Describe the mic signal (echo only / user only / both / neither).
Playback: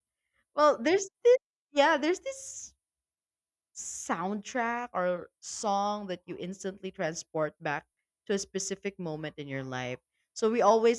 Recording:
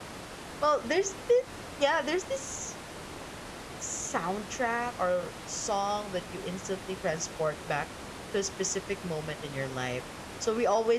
echo only